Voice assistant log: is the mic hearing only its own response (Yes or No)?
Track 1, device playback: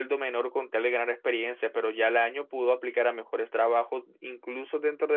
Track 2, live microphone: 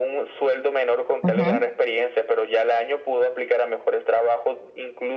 No